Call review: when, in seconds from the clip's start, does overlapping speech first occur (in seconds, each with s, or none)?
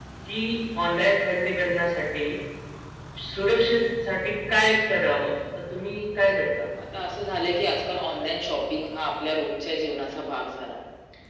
none